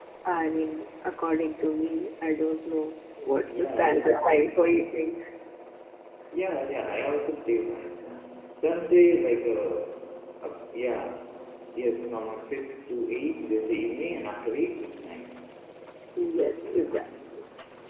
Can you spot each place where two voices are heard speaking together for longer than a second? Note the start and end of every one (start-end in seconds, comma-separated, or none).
3.4-4.8